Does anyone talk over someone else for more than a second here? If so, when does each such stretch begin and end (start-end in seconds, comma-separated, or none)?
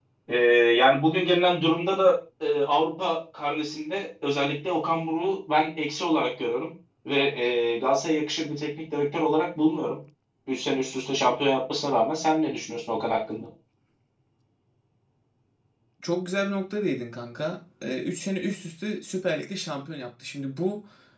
none